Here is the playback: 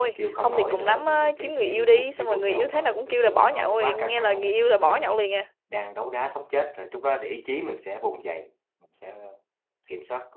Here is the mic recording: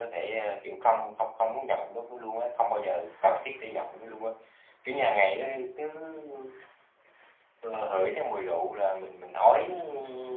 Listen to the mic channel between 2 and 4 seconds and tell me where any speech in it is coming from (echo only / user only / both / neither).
user only